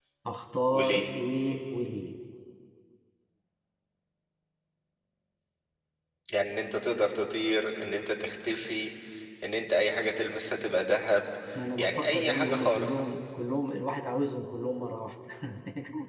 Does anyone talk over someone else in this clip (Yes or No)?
Yes